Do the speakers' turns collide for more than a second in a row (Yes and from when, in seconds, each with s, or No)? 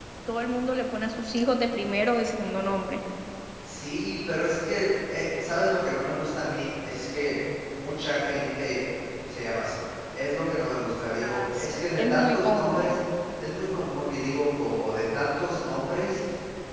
Yes, from 11.2 s